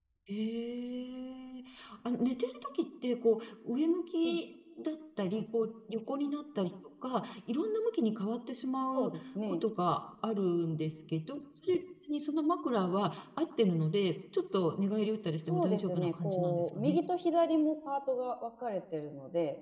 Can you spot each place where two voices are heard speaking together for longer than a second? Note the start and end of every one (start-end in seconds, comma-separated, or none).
15.5-17.0